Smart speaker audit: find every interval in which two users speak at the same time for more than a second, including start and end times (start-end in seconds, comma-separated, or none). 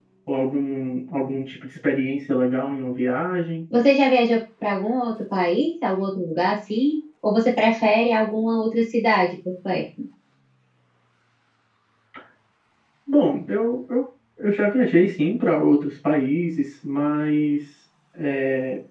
none